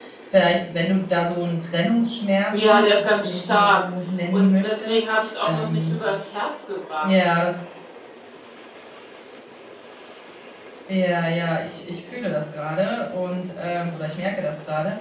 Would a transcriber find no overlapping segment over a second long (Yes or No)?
No